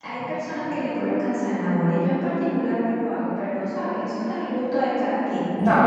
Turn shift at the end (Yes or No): Yes